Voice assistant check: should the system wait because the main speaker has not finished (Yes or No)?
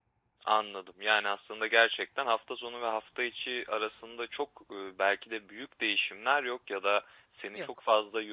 Yes